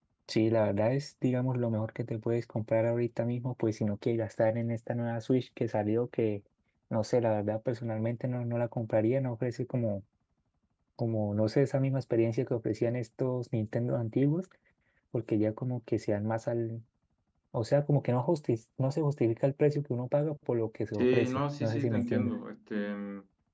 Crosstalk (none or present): present